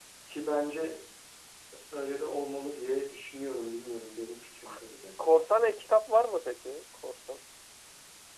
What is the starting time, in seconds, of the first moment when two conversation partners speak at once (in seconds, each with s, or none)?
none